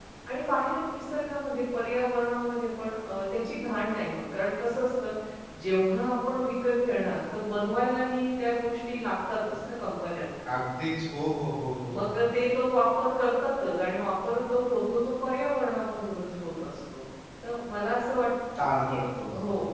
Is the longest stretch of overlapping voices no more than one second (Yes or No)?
Yes